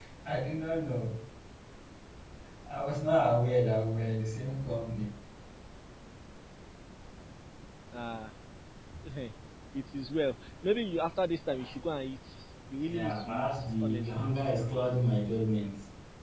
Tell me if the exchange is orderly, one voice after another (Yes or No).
No